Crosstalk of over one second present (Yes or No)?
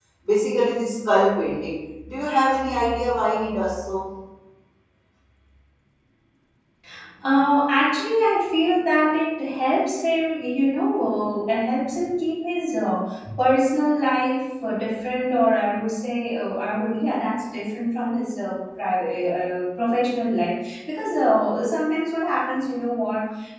No